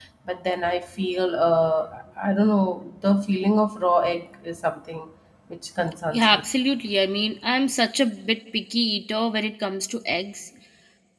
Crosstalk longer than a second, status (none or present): none